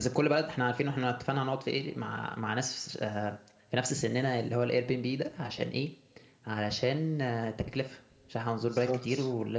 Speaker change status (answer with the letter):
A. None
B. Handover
A